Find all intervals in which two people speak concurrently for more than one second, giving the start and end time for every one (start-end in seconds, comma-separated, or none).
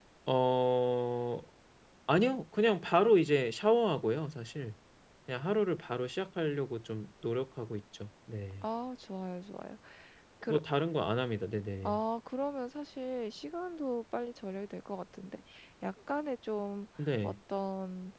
none